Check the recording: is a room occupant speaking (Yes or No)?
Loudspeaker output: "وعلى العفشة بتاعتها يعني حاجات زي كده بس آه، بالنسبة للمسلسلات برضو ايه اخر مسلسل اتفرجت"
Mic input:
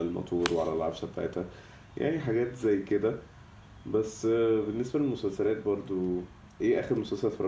No